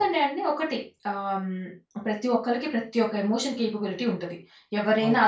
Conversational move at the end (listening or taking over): listening